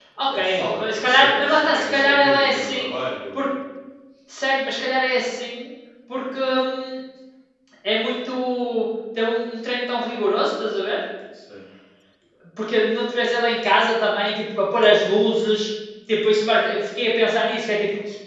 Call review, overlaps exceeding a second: present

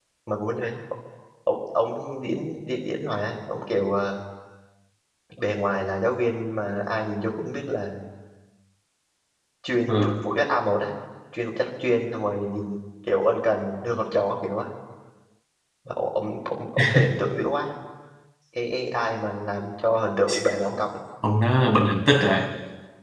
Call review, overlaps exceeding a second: none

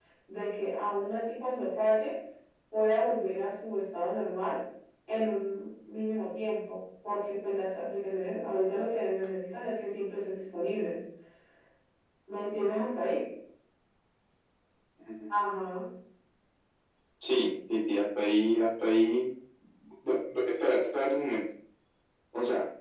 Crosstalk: none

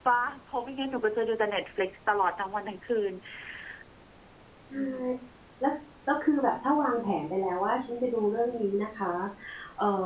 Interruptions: none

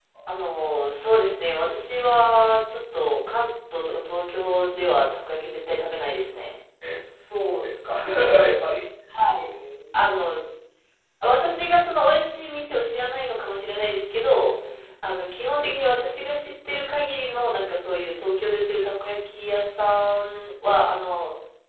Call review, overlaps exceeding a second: none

